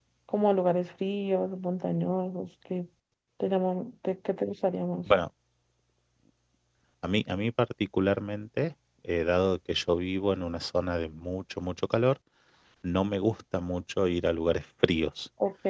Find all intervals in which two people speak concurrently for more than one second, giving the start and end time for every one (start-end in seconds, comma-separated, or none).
none